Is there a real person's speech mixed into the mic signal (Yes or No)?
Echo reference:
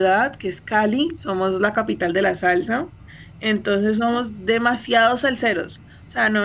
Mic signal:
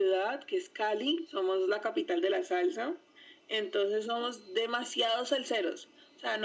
No